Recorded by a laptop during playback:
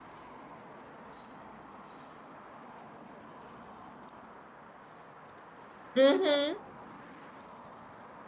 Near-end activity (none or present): present